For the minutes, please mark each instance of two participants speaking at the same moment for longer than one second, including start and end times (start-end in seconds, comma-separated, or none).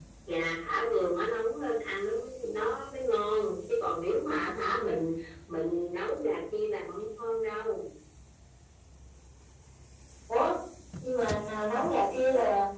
none